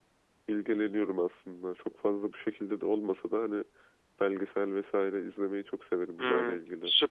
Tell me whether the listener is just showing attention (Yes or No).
No